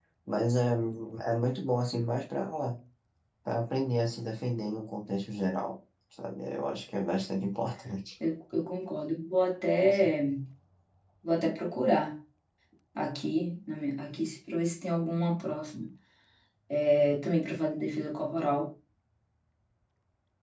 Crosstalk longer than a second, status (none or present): none